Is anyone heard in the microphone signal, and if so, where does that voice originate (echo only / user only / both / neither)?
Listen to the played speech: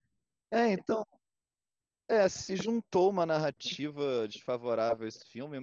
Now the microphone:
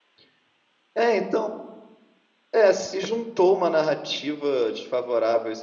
echo only